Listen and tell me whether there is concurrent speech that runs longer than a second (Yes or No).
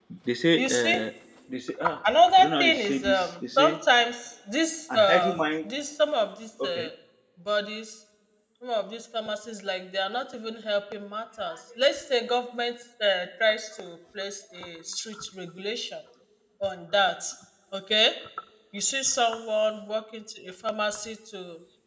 Yes